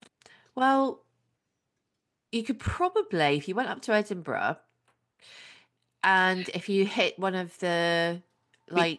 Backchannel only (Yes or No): No